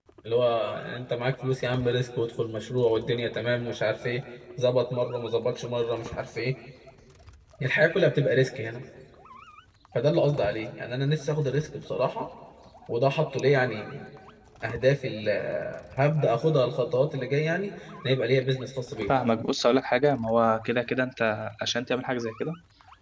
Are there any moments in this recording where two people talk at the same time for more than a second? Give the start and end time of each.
none

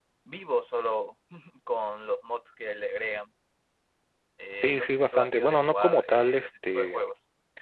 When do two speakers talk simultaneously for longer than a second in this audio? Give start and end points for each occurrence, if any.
4.6-7.1

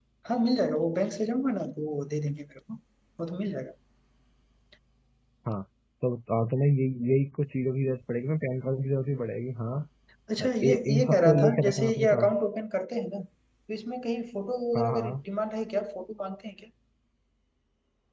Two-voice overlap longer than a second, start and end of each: 10.6-12.3

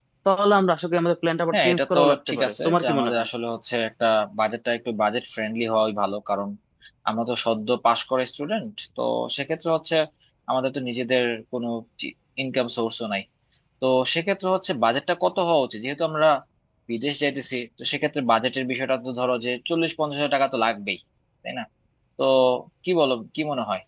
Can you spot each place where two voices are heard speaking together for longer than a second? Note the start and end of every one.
1.5-3.3

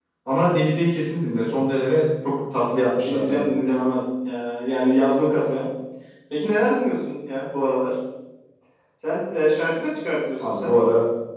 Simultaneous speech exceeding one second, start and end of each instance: none

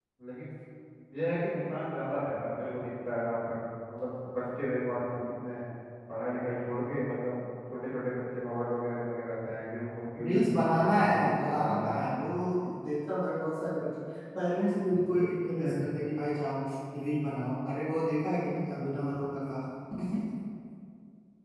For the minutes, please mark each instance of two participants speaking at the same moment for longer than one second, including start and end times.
10.2-11.8

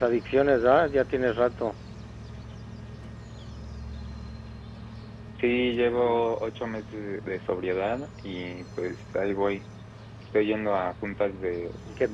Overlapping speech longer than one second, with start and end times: none

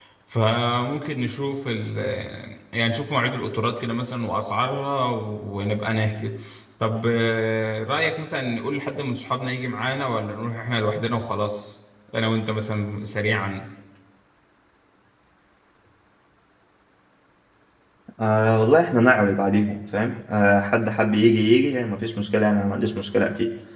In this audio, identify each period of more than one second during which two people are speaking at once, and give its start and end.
none

